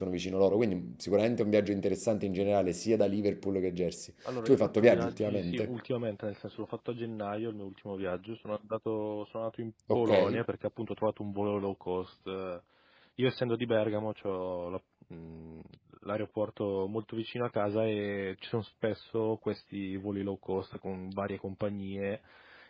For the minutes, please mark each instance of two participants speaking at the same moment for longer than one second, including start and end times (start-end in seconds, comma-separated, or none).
4.5-5.7